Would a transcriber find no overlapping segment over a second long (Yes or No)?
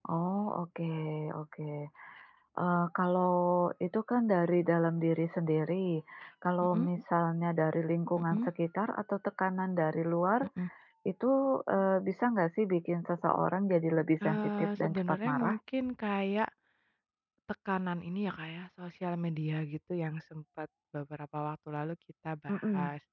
No